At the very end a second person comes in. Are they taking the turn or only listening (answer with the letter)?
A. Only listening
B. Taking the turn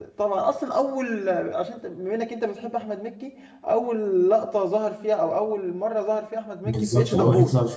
B